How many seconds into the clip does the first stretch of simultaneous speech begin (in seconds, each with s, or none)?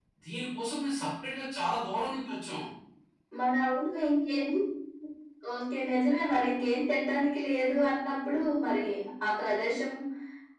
none